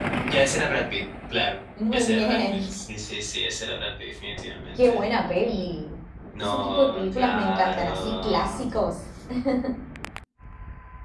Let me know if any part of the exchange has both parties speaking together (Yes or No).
Yes